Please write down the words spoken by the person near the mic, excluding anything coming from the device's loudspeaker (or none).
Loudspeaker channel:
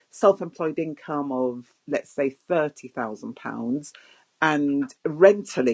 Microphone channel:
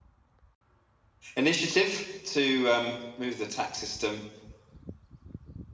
initiative to um, move the tax system